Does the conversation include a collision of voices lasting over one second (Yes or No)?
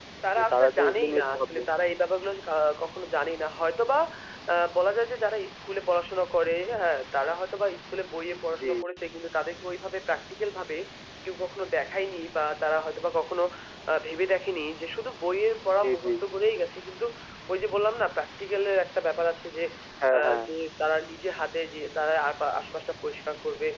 Yes